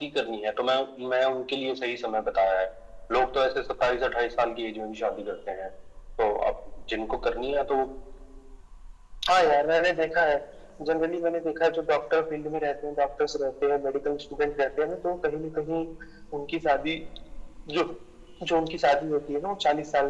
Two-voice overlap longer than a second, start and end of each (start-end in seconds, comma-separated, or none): none